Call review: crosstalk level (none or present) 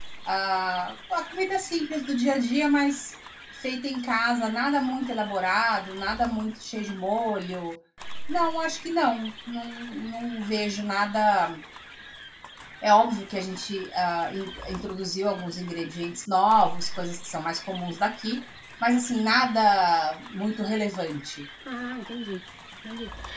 none